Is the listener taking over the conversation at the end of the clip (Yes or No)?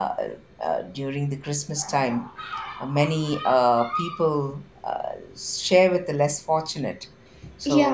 Yes